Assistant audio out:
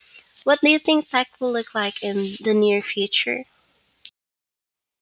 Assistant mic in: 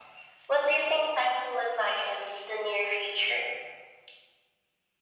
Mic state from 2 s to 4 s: echo only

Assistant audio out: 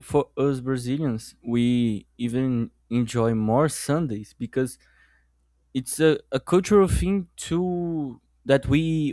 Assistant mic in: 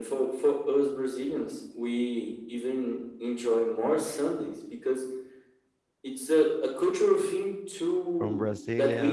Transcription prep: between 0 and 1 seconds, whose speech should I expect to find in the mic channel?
echo only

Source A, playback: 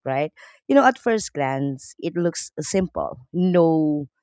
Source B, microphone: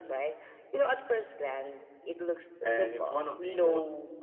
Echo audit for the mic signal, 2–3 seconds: both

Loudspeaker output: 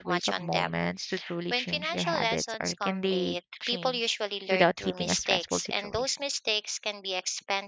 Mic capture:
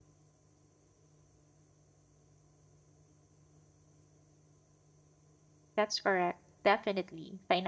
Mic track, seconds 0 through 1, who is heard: neither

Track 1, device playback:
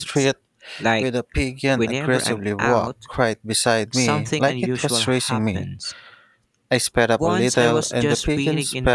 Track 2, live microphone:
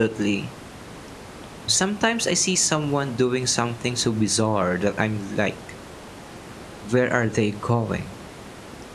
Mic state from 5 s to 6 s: user only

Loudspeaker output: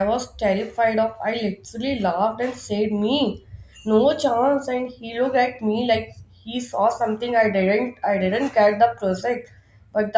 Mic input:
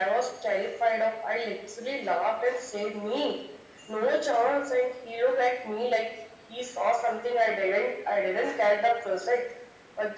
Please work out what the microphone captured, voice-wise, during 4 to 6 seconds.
echo only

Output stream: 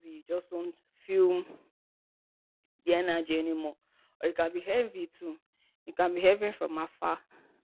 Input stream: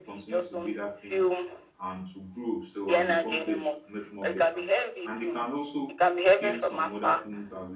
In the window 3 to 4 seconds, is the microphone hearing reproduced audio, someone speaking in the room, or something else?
both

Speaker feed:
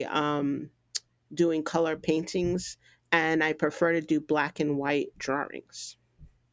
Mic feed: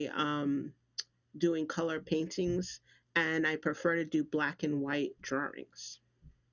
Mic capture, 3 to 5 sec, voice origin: echo only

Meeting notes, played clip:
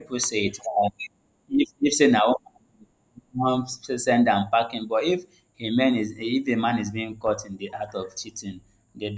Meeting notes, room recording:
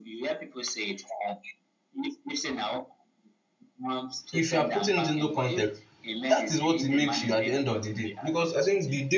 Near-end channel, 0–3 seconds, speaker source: echo only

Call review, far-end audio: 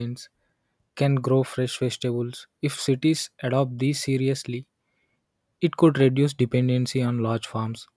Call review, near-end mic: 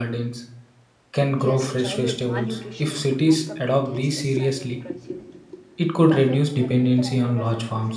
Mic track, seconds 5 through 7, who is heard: both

